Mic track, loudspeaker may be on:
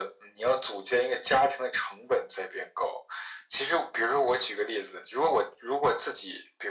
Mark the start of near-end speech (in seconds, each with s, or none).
none